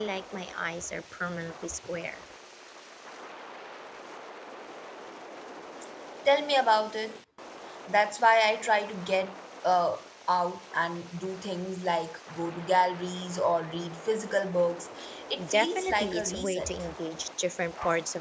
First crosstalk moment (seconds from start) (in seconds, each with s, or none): 15.5 s